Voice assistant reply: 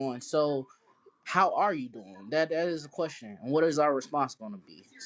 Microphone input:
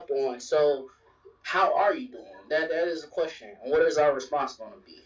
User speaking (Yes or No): No